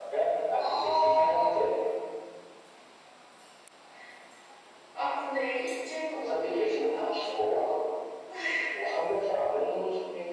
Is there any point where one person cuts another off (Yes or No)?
Yes